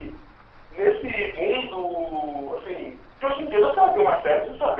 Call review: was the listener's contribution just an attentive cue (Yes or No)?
No